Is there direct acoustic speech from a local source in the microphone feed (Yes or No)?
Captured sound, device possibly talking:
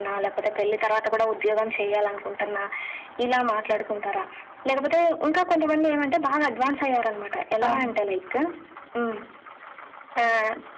Yes